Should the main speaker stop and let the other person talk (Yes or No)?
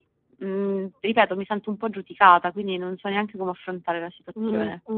Yes